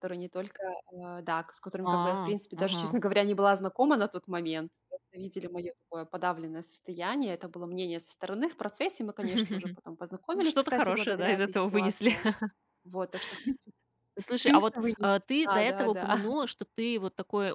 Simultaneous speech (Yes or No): Yes